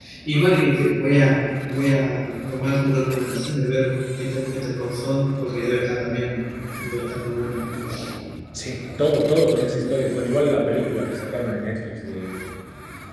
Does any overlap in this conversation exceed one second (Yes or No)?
No